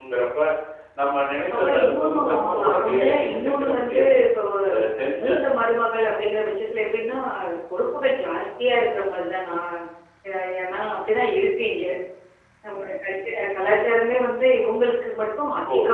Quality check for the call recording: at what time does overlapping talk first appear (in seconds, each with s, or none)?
1.5 s